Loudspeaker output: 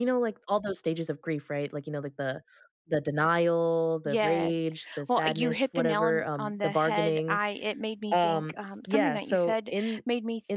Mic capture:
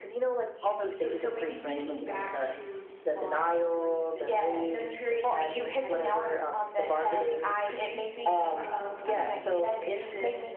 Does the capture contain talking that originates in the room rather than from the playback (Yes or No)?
Yes